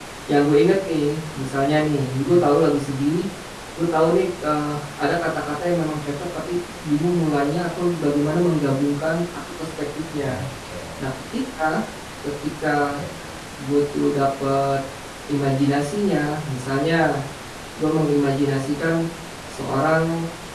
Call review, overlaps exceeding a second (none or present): none